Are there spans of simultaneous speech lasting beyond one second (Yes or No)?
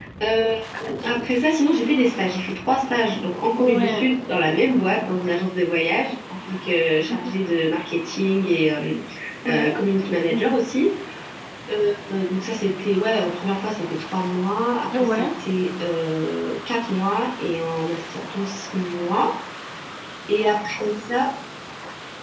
No